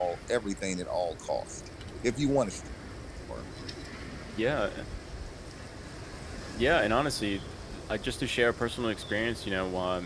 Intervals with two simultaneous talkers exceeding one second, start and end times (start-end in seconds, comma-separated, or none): none